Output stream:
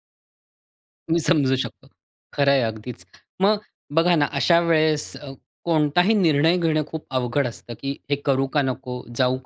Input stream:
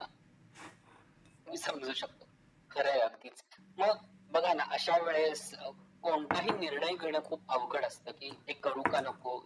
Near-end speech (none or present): none